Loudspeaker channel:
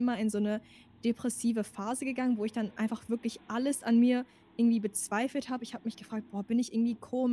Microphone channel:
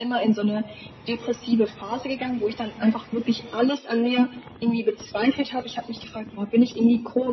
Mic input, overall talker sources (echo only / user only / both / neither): echo only